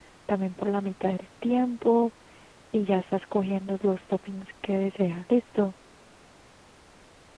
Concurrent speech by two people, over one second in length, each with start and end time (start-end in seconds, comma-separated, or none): none